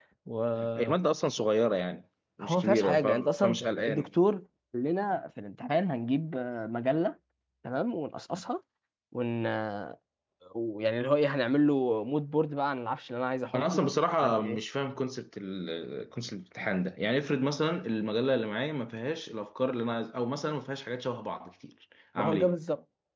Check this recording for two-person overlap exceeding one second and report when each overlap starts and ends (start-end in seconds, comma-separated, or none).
2.4-4.1